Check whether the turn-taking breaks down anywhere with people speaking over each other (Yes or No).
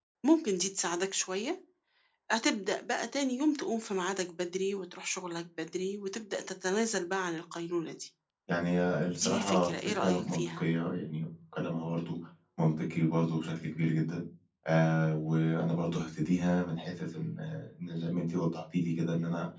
Yes